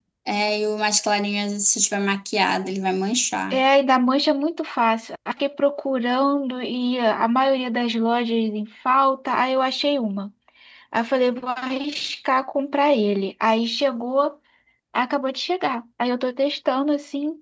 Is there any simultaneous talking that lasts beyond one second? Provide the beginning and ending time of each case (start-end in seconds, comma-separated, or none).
none